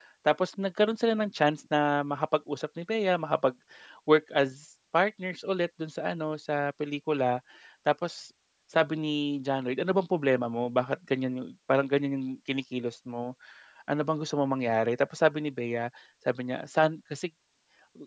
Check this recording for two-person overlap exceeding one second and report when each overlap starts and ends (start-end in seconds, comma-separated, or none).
none